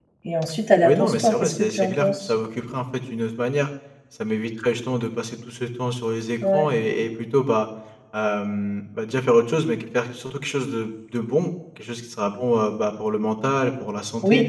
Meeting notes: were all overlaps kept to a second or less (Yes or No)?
No